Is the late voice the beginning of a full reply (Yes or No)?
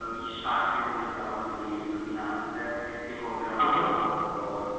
No